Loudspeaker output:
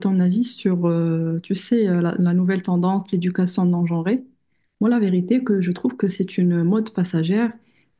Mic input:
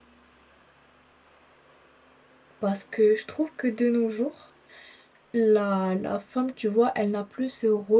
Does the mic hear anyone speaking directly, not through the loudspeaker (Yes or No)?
Yes